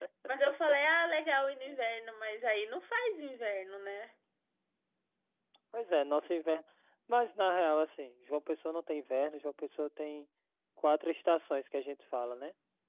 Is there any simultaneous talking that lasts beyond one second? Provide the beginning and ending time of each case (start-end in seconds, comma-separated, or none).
none